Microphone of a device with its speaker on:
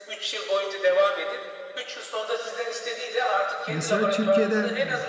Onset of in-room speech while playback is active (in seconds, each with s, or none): 3.7 s